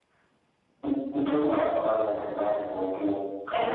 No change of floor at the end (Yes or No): No